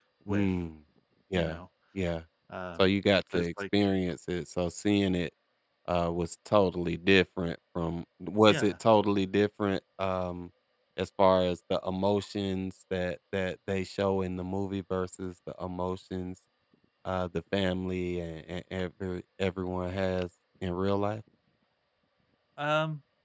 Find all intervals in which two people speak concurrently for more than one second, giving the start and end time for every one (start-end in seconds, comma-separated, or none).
none